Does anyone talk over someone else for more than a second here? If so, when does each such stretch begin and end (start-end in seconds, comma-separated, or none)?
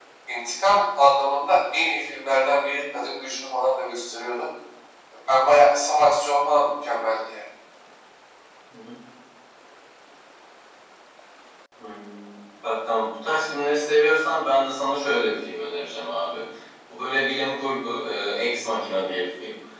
none